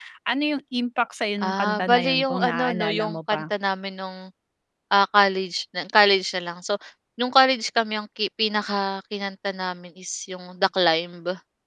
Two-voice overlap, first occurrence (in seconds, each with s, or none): 1.4 s